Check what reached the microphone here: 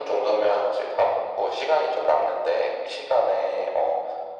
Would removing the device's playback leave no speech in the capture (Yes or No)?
Yes